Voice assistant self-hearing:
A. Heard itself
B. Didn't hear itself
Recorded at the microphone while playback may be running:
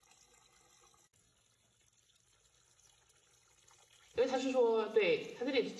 B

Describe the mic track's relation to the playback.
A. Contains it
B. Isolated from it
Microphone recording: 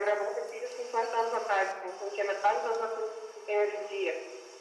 A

